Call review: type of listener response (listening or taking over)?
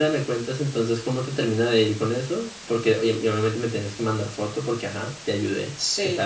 taking over